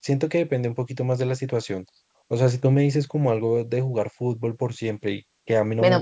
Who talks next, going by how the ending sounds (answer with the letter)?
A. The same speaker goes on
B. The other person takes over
B